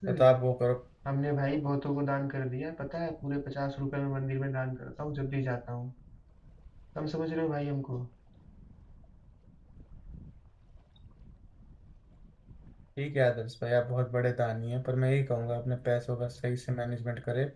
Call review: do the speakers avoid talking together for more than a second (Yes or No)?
Yes